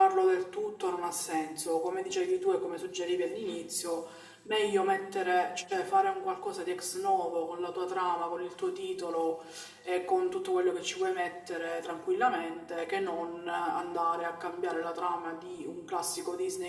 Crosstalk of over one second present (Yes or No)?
No